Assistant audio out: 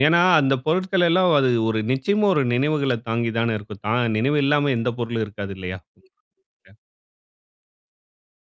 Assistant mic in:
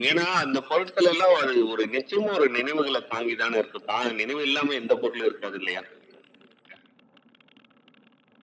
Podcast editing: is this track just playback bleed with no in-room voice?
Yes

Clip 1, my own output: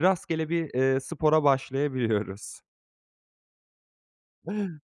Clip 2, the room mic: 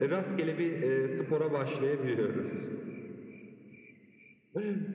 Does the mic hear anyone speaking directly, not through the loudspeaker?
No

